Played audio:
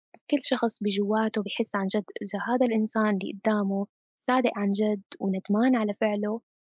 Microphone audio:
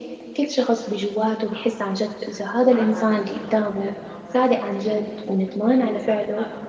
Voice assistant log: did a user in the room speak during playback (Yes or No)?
Yes